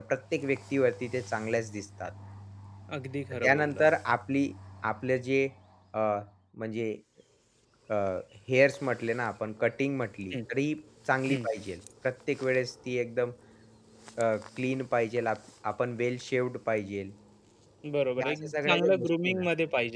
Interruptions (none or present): present